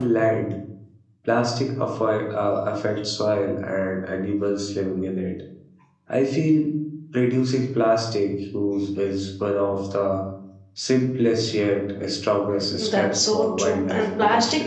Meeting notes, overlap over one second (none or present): present